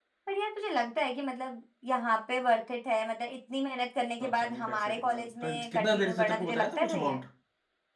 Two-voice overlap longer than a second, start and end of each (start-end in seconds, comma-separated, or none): 4.2-7.2